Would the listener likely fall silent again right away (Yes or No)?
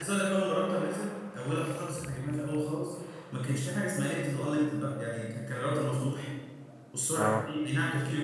Yes